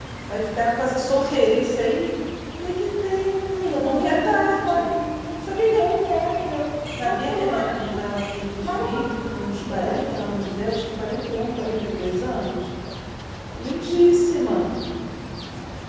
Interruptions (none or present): present